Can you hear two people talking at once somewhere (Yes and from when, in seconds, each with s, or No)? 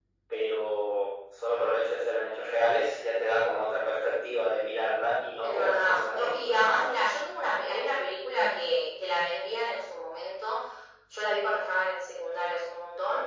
Yes, from 5.4 s